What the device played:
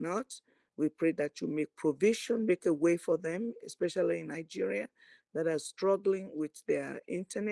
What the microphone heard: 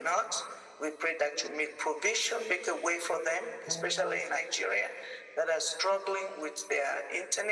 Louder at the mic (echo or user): echo